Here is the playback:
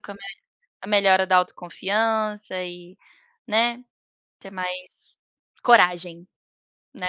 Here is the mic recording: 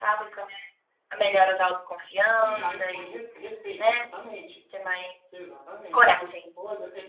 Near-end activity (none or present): present